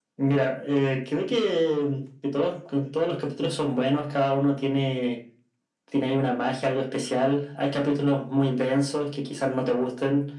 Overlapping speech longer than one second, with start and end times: none

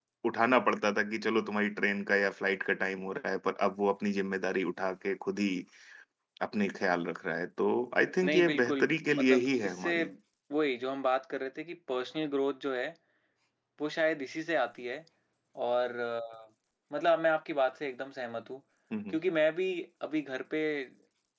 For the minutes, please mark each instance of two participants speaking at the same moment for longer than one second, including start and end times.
8.2-10.0

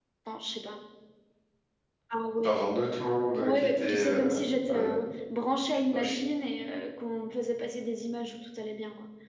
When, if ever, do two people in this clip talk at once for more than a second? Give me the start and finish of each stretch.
3.4-4.9

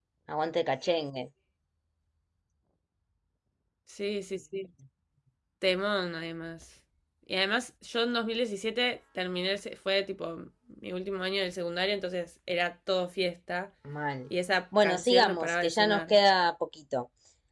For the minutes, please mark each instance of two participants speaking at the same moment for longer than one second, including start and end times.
14.8-16.2

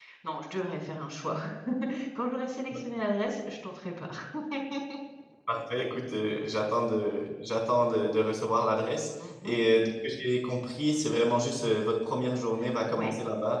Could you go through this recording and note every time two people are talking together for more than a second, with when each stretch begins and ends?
none

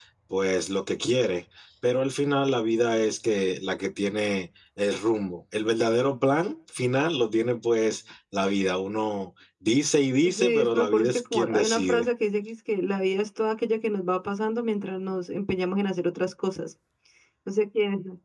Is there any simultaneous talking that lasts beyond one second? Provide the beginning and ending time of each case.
10.2-12.1

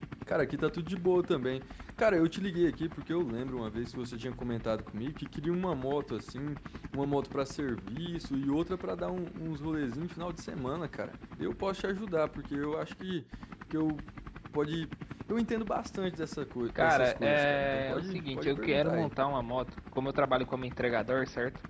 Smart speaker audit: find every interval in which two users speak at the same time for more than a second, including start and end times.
16.8-19.1

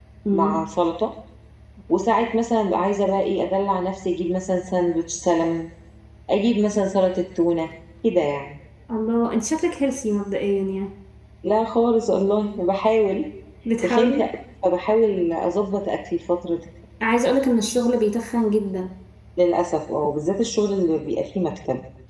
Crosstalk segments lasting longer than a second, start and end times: none

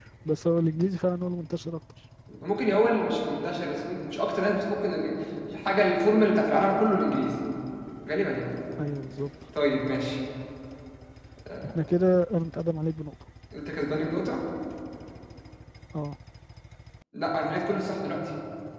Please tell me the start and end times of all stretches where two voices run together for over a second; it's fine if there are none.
none

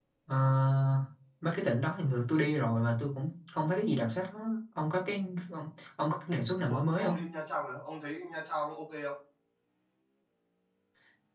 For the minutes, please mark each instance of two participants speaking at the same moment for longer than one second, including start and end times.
none

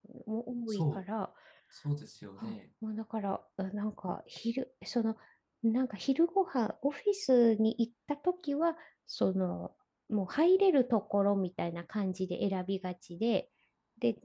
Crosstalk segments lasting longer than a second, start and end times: none

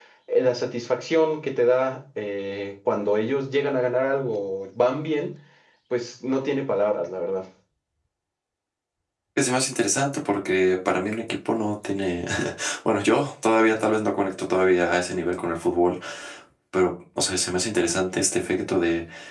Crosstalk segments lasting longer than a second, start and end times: none

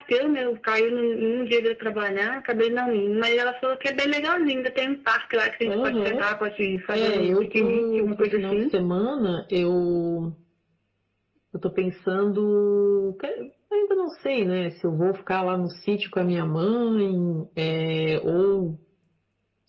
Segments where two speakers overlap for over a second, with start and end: 6.9-8.6

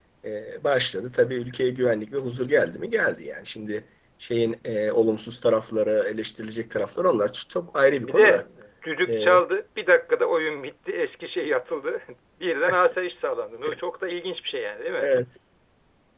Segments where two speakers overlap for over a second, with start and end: none

